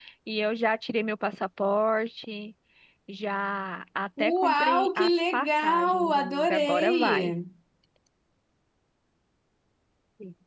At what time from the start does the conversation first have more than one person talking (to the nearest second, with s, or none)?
4 s